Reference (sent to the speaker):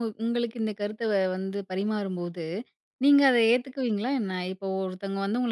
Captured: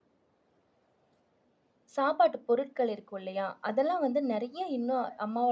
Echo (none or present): none